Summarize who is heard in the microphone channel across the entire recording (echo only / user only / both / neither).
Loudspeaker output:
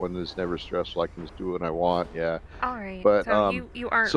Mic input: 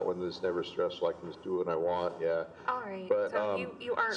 echo only